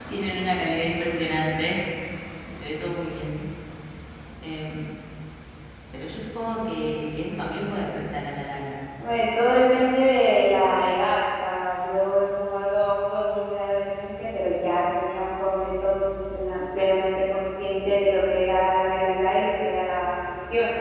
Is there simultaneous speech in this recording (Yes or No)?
No